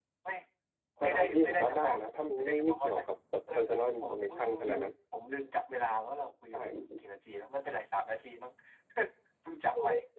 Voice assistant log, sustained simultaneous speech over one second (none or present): present